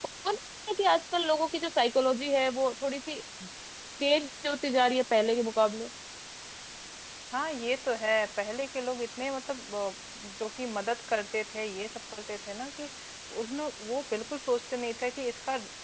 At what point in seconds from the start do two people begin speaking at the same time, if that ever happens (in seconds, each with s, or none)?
none